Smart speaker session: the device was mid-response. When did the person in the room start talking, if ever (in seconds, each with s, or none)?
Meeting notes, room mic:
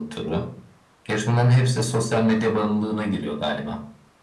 none